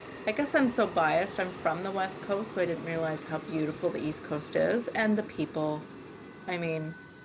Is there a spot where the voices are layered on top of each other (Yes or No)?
No